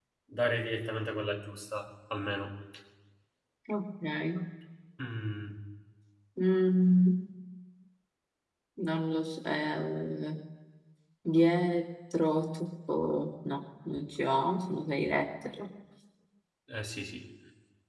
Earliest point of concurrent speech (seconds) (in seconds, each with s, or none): none